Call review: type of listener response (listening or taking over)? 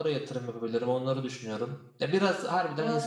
listening